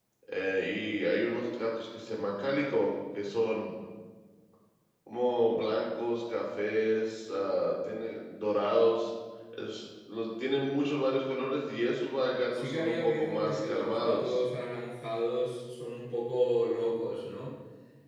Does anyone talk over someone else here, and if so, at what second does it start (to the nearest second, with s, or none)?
13 s